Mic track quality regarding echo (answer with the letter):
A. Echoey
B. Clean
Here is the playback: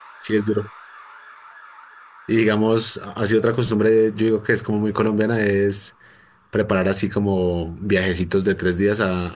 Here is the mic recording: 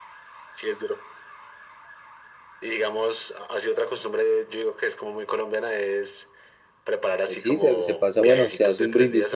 A